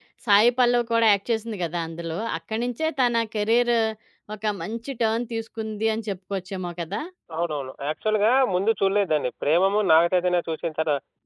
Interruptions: none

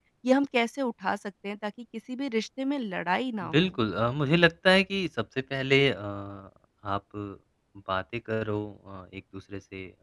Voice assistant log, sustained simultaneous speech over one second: none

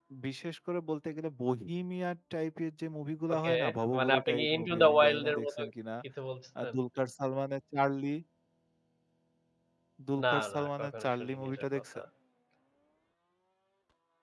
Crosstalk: present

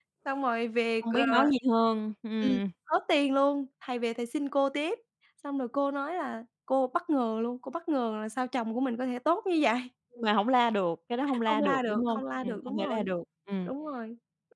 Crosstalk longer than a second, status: present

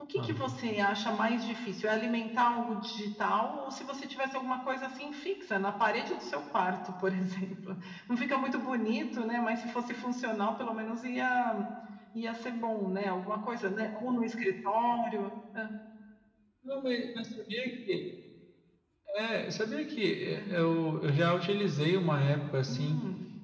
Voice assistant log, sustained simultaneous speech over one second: none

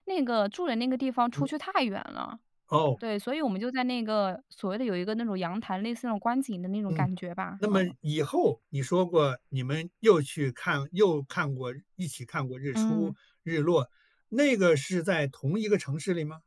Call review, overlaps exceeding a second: none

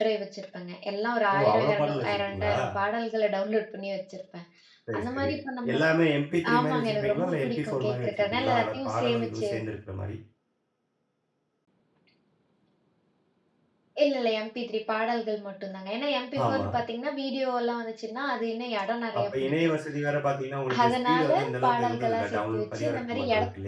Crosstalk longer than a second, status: present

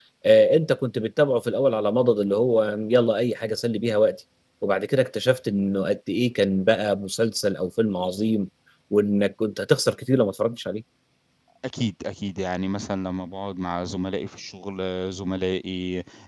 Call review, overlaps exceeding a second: none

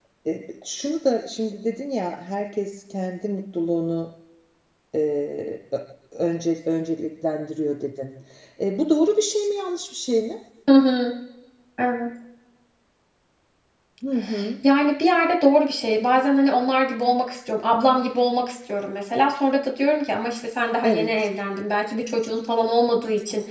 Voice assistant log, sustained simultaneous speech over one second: none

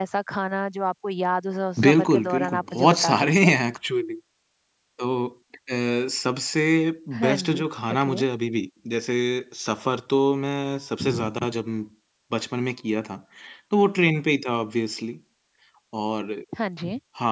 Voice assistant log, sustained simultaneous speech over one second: present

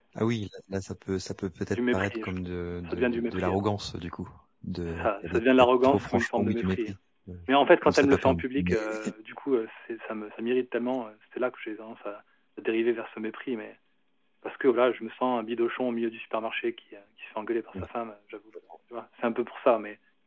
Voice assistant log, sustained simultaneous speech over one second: present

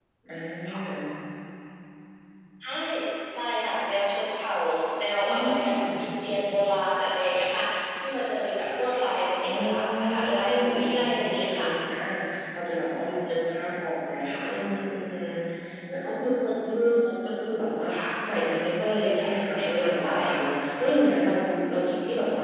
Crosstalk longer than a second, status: present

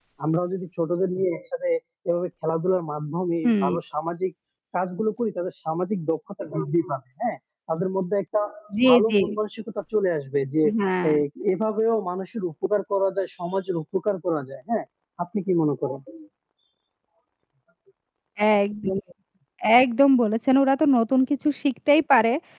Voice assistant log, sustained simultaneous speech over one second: none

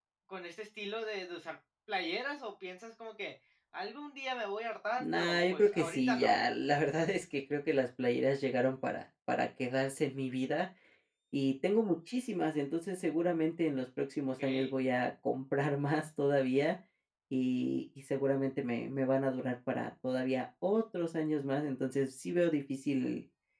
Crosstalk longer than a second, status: present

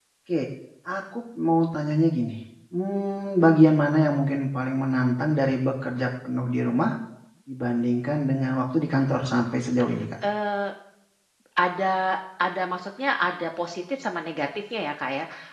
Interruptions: none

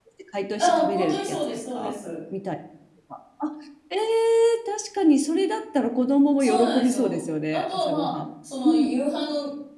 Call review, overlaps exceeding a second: present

